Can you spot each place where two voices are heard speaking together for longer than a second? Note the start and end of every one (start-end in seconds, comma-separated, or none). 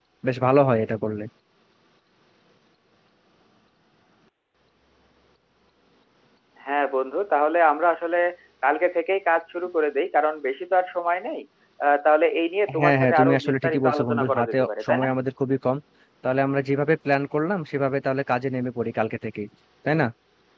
12.8-15.1